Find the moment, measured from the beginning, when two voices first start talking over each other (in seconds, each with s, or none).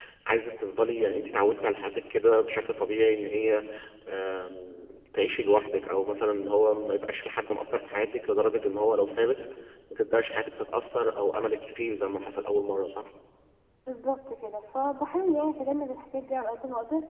none